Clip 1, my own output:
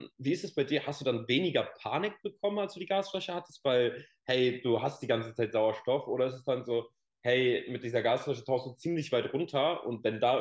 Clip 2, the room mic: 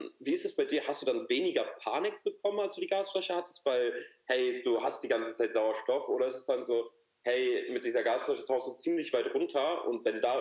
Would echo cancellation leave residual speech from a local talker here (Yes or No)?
No